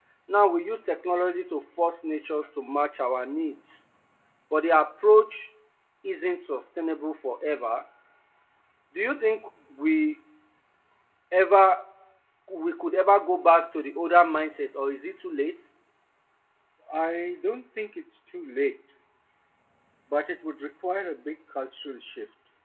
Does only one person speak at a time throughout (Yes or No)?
Yes